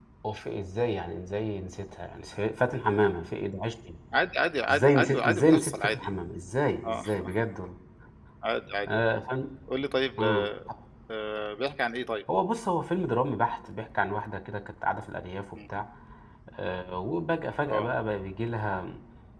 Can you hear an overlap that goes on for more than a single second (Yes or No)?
Yes